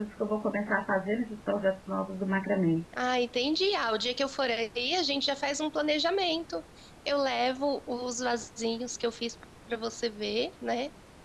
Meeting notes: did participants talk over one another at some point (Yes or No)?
No